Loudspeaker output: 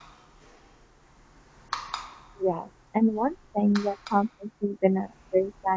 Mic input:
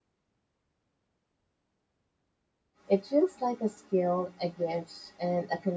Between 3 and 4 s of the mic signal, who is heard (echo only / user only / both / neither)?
user only